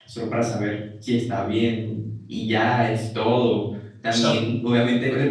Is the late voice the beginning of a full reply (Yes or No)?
No